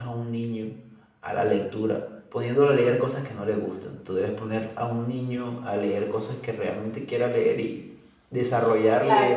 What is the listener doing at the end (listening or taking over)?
listening